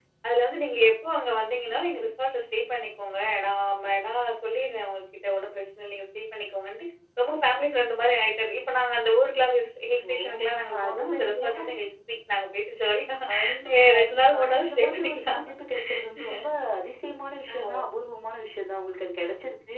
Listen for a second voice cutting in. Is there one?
Yes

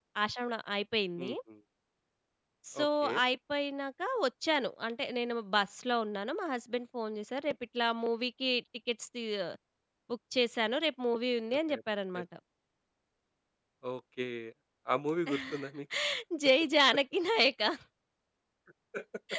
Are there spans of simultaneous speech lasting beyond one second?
No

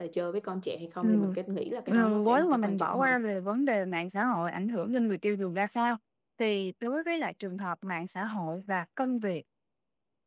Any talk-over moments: Yes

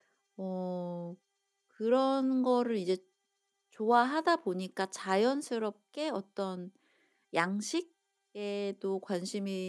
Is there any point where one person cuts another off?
No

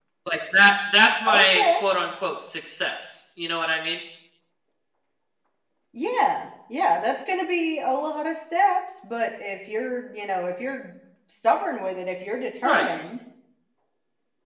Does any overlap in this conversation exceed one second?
No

